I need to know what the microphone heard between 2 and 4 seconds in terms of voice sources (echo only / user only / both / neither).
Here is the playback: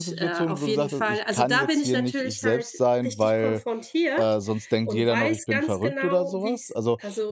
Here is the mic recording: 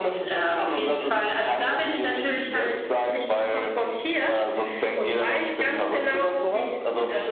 echo only